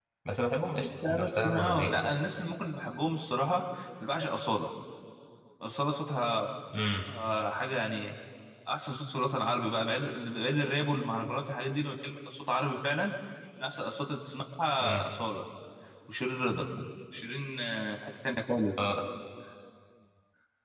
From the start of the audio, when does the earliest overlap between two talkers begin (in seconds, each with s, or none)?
0.8 s